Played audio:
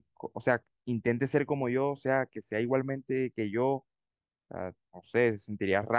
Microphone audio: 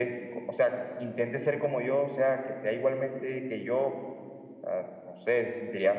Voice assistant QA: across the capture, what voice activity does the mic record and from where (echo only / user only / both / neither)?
echo only